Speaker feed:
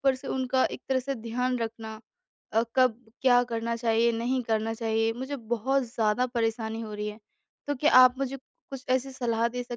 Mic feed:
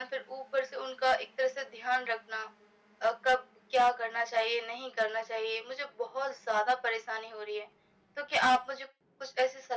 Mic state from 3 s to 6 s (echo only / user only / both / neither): echo only